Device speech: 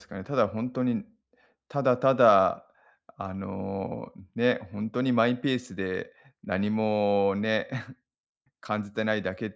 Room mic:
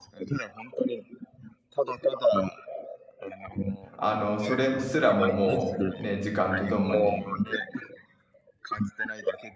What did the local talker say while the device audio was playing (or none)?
あの、それむすらも、もうね、時間とともに、